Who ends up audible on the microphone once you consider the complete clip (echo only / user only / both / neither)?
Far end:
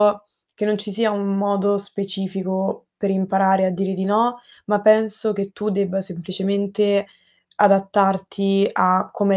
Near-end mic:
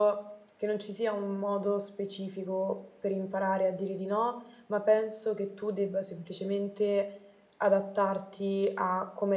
echo only